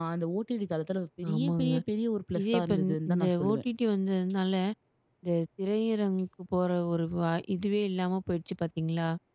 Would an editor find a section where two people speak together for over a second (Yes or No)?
Yes